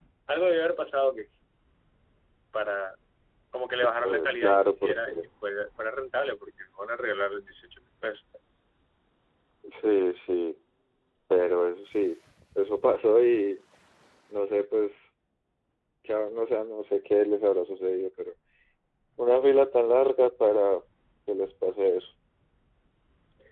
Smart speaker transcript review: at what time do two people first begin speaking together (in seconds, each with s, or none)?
4.0 s